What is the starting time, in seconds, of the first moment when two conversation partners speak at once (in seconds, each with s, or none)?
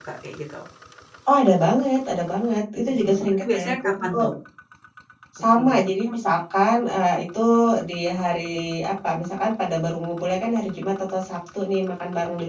2.9 s